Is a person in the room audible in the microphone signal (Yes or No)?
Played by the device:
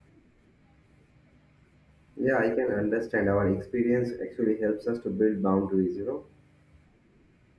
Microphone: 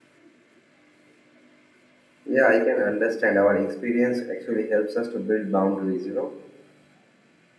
No